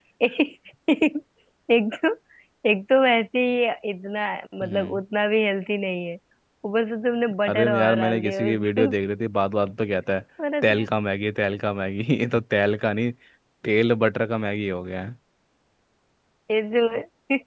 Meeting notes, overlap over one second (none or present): present